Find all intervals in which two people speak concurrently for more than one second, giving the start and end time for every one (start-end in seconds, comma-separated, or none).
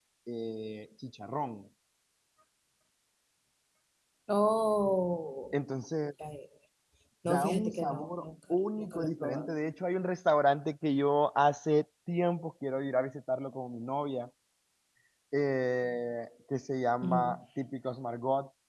7.2-9.5